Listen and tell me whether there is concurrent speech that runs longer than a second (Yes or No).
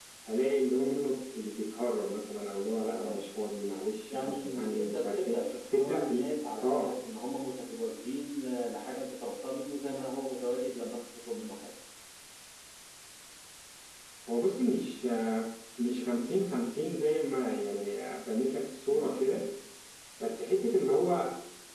Yes